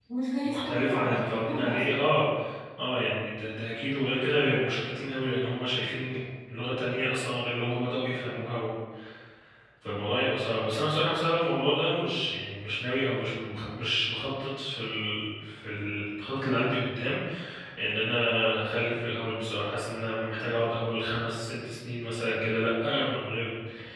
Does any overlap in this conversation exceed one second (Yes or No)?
Yes